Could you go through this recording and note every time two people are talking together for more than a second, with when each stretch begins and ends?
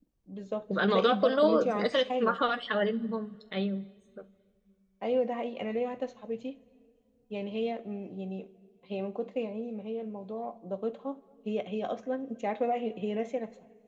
0.8-2.4

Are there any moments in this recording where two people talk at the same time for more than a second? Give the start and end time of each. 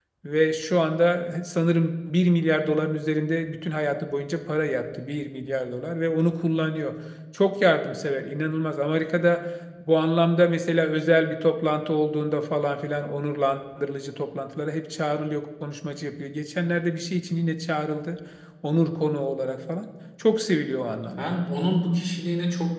none

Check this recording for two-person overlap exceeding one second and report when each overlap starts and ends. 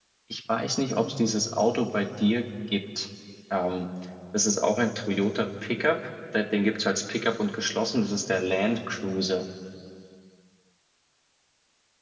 none

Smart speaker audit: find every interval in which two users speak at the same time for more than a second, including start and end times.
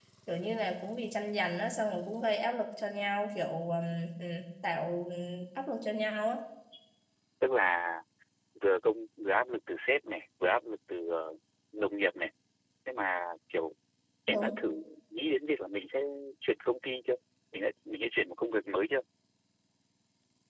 none

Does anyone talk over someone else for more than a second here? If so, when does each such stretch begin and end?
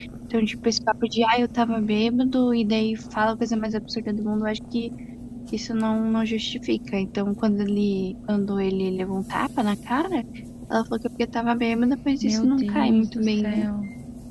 12.2-13.6

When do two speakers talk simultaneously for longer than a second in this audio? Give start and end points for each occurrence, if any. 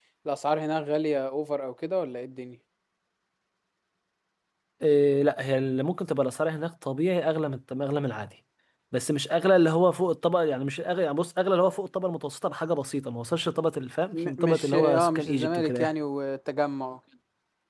14.1-15.9

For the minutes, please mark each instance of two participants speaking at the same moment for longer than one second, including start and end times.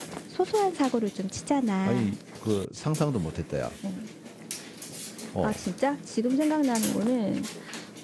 none

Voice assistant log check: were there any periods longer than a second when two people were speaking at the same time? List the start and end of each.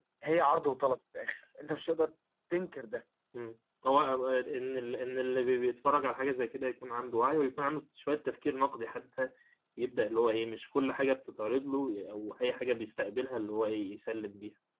none

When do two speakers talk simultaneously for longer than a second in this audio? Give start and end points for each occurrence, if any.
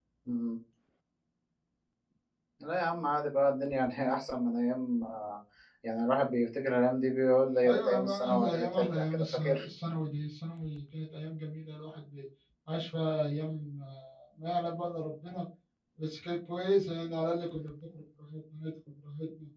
7.7-9.7

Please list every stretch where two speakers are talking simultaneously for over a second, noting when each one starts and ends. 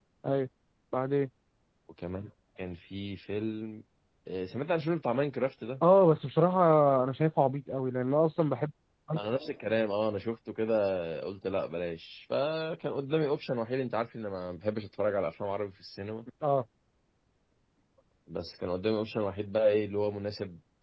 none

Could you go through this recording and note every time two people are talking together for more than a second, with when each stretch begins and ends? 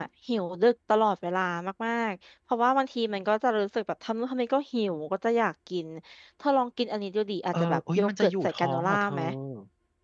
7.6-9.2

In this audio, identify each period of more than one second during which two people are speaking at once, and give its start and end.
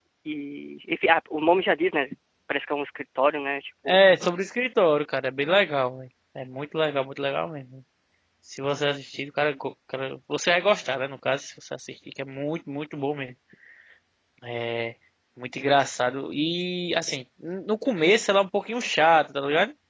none

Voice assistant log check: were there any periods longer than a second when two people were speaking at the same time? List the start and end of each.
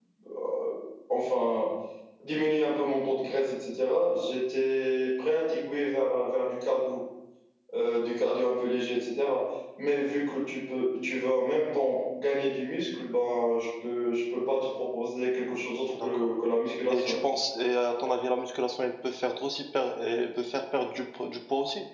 none

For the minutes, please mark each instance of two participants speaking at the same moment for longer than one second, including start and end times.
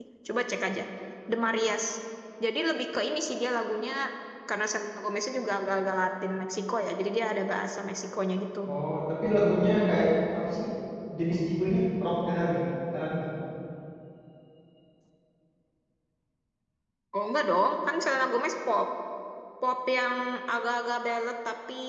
none

